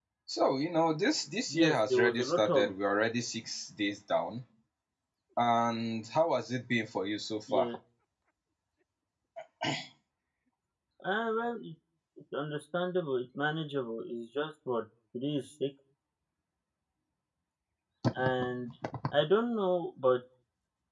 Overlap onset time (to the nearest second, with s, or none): 2 s